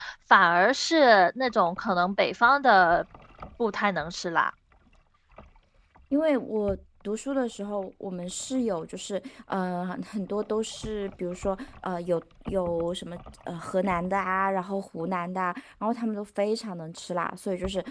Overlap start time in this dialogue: none

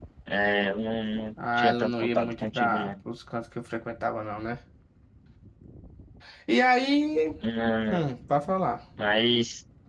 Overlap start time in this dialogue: 1 s

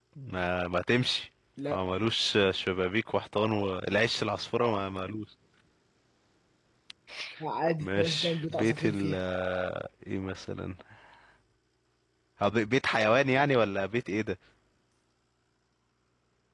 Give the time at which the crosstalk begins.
8 s

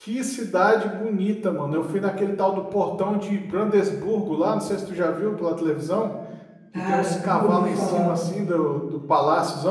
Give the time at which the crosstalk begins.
7 s

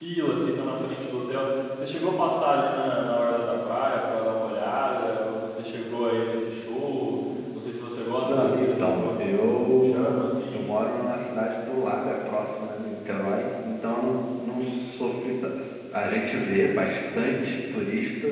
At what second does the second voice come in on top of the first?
8 s

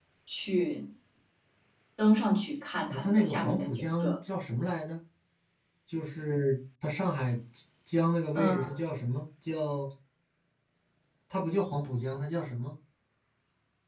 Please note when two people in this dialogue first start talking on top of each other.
3 s

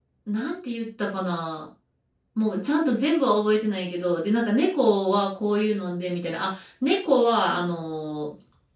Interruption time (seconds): none

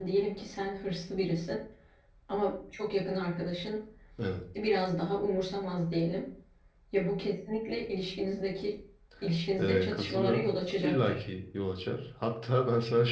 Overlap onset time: 10 s

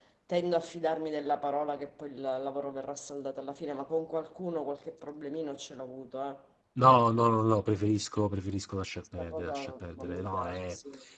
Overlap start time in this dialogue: 9 s

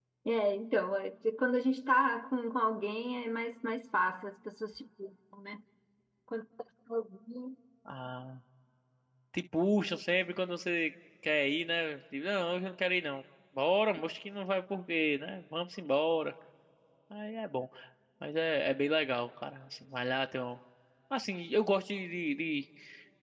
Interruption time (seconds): none

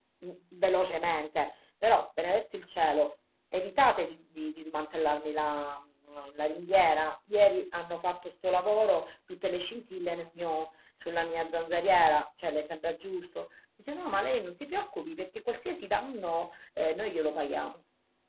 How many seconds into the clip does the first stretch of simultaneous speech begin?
none

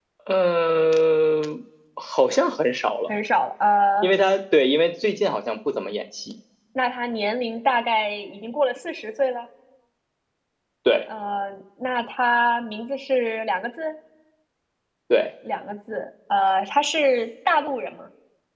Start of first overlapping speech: none

